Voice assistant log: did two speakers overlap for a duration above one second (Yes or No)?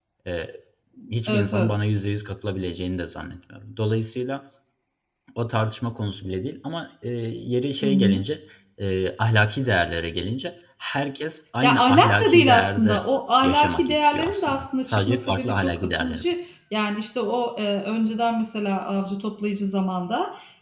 Yes